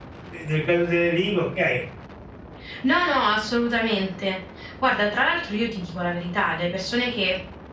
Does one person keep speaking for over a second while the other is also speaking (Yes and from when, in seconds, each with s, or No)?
No